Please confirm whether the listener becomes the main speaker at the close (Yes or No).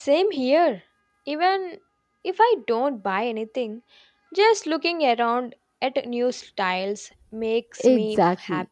Yes